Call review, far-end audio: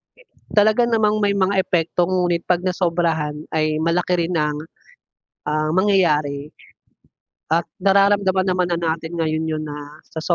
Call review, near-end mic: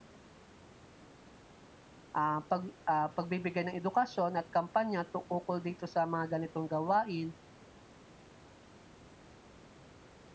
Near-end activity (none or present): present